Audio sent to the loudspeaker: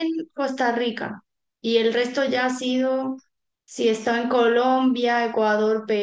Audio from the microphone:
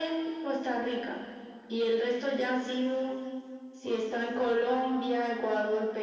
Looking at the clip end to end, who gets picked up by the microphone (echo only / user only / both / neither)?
echo only